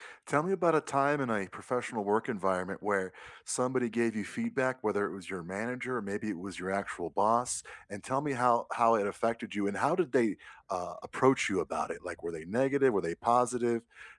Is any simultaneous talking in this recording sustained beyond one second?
No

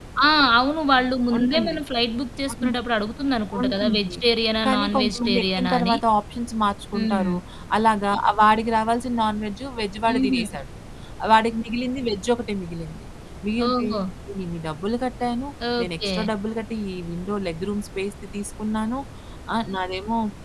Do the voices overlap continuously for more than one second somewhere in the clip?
Yes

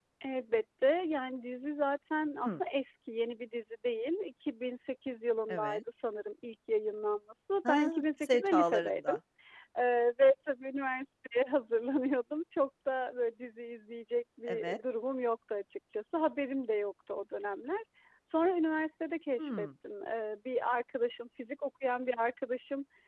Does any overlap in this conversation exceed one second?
Yes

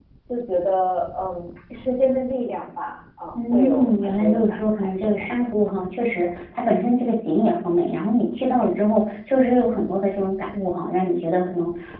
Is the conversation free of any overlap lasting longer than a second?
No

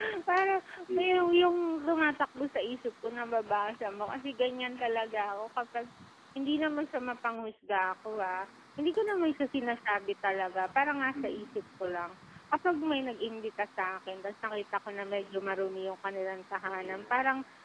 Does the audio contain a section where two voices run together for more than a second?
No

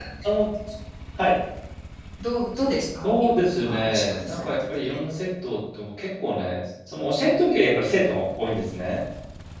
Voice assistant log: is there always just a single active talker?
No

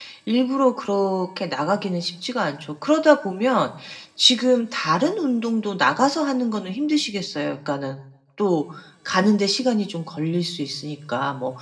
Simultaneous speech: No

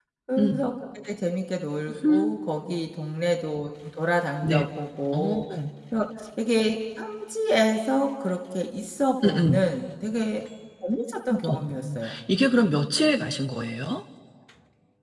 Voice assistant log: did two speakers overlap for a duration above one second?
No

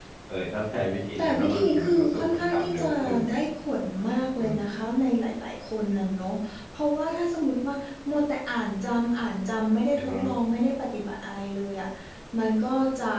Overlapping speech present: Yes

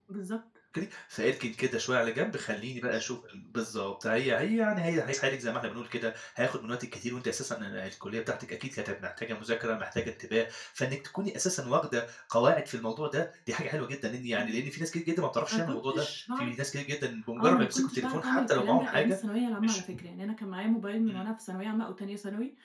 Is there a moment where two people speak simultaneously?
Yes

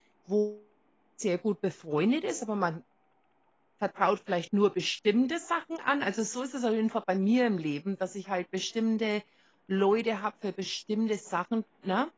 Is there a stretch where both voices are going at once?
No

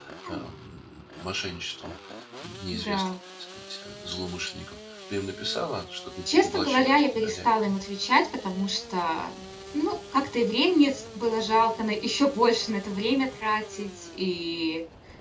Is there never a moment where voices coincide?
No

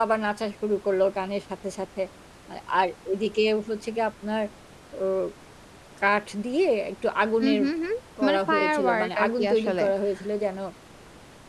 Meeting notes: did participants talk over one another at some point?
Yes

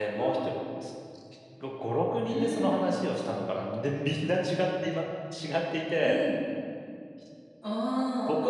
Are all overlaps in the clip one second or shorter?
Yes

